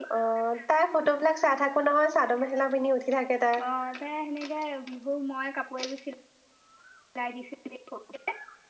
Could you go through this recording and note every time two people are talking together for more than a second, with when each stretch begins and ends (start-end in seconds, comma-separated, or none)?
none